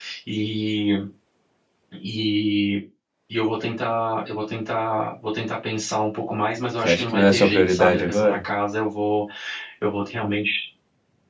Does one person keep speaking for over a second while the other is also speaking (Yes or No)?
Yes